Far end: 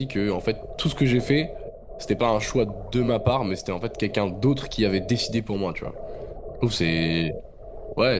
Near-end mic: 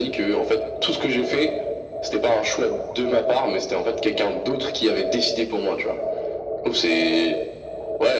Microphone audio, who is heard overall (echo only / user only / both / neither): echo only